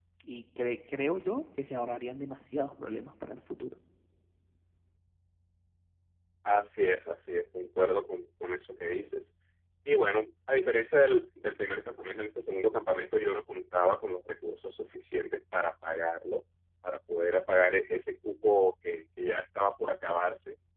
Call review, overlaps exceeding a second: none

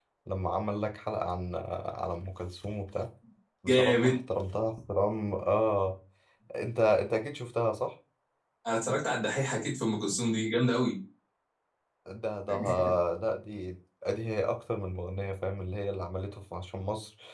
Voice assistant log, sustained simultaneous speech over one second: none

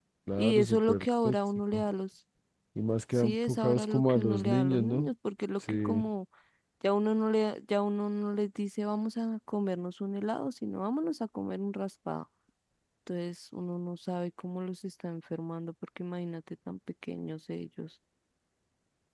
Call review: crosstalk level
present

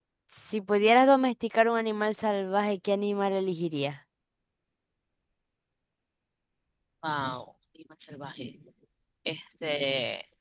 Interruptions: none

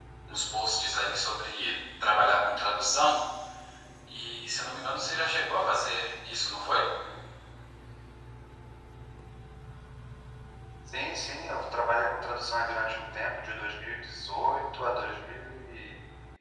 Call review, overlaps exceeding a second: none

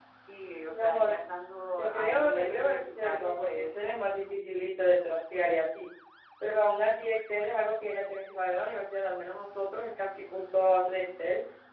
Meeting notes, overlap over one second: present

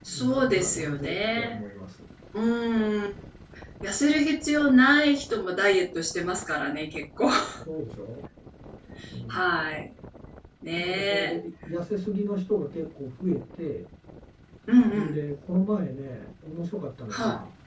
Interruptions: present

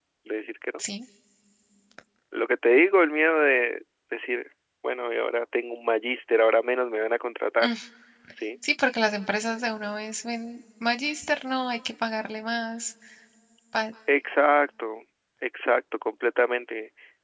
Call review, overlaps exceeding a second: none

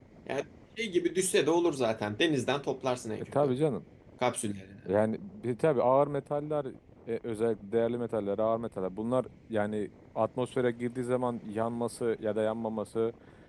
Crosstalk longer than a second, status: none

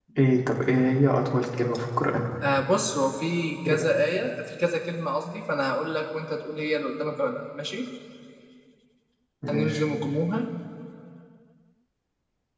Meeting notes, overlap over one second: none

